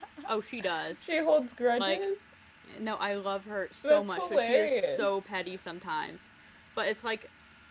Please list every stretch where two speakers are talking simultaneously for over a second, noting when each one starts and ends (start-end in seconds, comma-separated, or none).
3.8-5.1